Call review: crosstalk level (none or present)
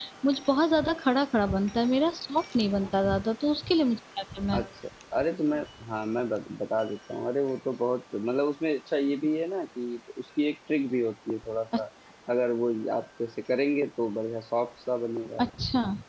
none